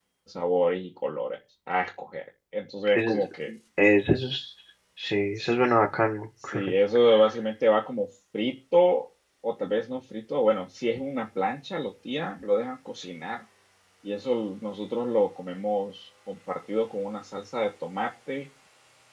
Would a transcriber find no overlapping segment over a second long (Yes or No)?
Yes